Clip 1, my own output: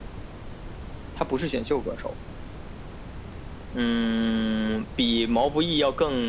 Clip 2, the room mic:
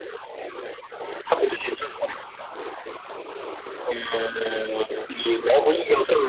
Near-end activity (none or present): none